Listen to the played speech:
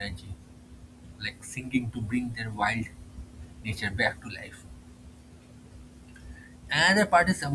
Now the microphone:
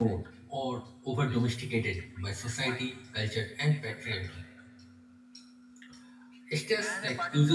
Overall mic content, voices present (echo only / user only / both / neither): both